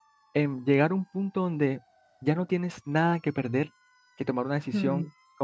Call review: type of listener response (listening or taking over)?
listening